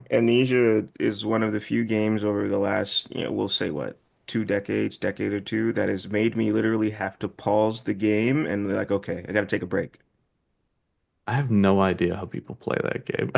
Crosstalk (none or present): none